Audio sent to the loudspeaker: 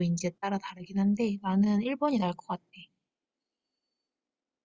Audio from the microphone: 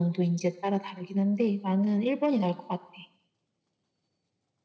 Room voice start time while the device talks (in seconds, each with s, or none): none